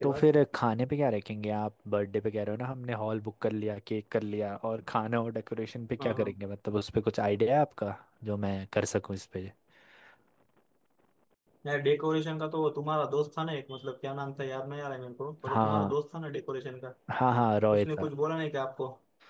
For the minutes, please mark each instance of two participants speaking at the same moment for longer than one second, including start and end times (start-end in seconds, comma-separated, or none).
none